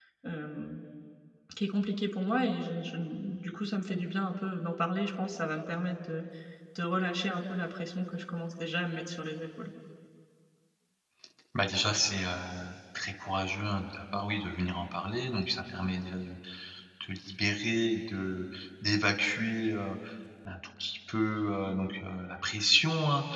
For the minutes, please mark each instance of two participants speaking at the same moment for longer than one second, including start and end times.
none

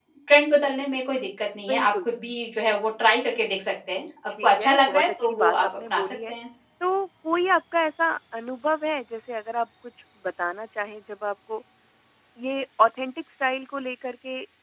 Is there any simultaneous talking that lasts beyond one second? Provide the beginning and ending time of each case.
4.4-6.3

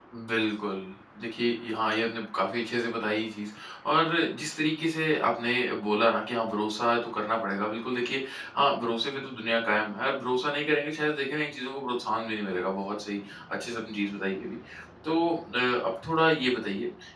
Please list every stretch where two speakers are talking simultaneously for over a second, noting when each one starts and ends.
none

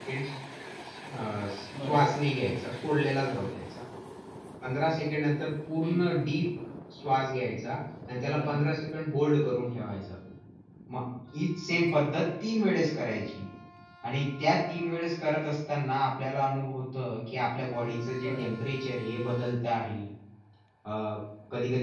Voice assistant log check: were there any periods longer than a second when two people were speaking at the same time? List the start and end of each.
none

